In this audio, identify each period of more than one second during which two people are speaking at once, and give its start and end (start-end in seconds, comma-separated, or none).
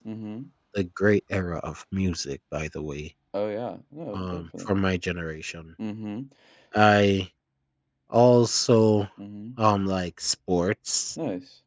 none